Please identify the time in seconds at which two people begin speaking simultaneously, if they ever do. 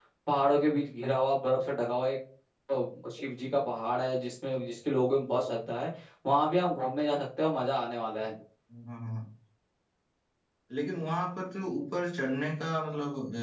none

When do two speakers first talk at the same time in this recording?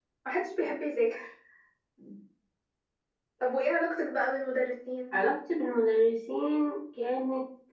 none

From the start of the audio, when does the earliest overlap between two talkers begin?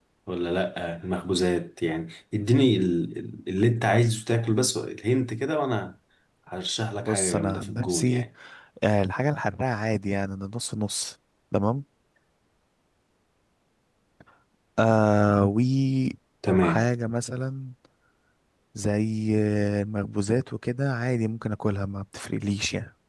7 s

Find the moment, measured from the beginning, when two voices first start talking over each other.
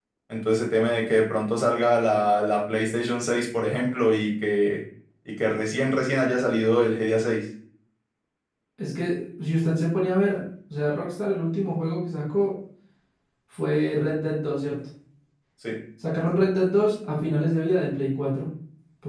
none

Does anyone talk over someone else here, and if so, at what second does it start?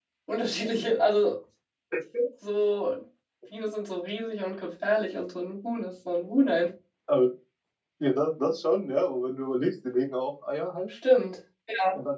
none

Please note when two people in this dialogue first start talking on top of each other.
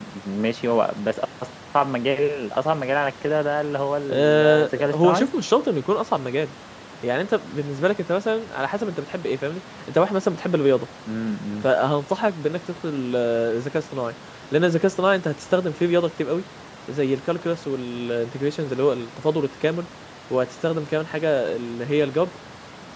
4 s

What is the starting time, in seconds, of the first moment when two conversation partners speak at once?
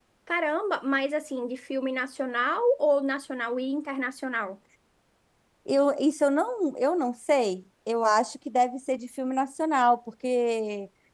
none

